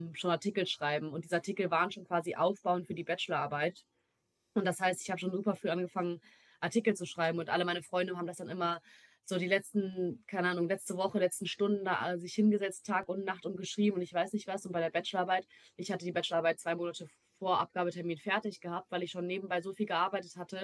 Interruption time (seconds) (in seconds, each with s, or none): none